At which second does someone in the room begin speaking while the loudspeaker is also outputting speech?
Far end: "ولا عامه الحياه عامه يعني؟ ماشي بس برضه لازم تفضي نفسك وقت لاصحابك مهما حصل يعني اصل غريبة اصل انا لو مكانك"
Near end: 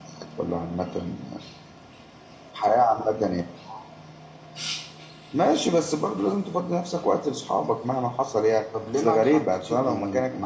9 s

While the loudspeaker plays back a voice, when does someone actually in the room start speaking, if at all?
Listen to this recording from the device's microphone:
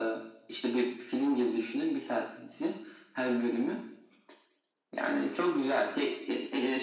none

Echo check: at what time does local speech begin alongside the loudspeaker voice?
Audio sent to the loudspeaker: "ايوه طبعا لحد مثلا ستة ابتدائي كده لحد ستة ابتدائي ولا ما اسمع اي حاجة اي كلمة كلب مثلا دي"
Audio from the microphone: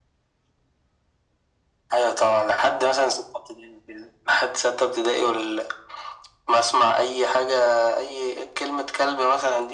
none

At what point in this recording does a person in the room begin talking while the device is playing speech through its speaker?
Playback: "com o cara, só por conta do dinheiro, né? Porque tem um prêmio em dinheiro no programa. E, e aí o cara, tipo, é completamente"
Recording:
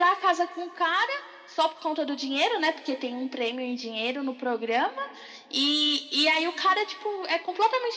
none

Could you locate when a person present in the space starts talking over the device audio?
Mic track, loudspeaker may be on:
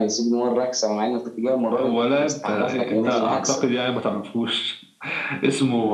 3 s

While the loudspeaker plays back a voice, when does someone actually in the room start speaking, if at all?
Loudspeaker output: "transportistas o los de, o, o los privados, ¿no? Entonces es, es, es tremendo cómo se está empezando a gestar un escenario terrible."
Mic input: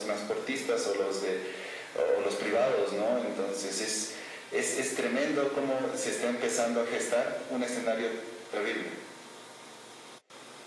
none

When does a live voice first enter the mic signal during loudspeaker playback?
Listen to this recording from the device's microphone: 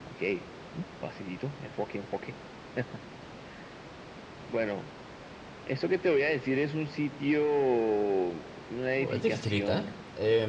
9 s

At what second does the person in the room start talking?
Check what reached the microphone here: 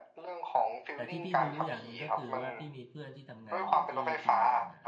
1 s

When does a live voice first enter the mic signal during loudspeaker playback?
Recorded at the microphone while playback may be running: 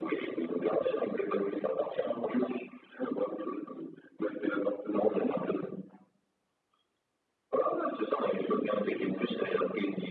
none

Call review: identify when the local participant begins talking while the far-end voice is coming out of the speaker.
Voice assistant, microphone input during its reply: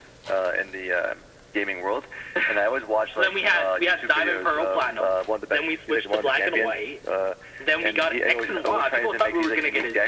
none

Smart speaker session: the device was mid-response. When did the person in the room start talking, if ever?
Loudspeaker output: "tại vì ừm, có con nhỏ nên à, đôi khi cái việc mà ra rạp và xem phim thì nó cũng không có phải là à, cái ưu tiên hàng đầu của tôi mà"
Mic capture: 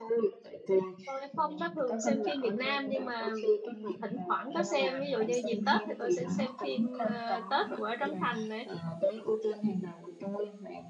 1 s

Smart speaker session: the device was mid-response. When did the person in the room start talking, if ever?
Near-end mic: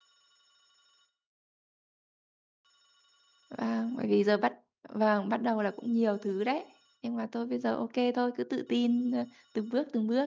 3 s

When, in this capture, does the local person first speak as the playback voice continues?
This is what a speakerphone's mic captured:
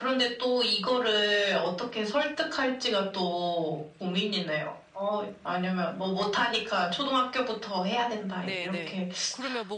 8 s

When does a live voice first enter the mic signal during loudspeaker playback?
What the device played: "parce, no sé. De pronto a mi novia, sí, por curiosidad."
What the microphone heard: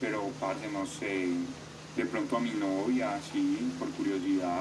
none

